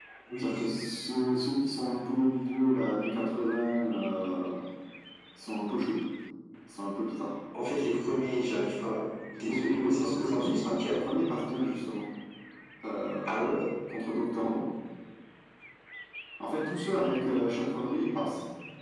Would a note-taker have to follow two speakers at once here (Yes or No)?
Yes